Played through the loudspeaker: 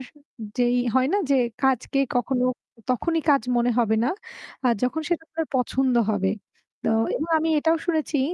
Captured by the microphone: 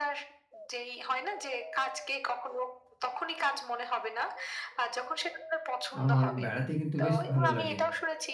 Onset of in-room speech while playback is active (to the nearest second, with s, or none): 6 s